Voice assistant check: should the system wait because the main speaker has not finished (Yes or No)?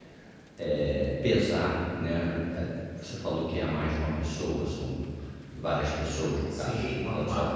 No